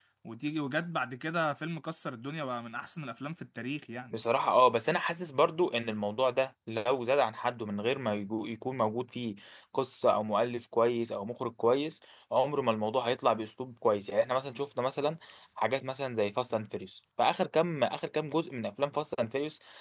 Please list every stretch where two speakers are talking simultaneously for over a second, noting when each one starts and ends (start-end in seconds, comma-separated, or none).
none